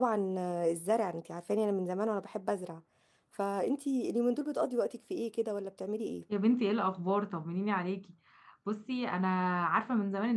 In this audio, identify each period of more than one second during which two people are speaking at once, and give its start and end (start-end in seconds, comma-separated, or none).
none